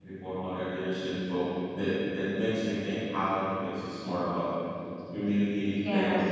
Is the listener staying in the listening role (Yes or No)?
No